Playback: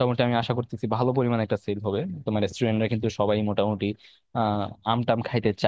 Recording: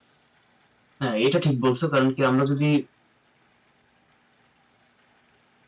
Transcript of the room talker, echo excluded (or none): হ্যাঁ এটা ঠিক বলছো কারণ কি আমরা যদি